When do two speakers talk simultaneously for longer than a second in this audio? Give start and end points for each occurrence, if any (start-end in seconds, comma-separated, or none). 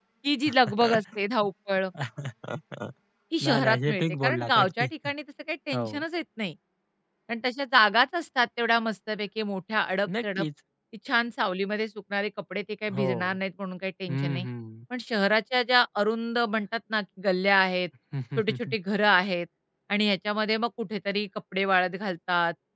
3.4-4.9